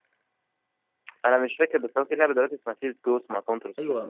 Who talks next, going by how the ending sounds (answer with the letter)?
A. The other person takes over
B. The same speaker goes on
A